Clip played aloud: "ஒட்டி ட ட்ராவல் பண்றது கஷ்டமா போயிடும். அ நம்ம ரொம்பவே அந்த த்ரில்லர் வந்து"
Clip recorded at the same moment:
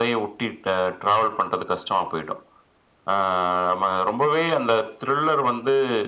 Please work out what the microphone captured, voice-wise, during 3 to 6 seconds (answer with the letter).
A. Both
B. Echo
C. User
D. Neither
B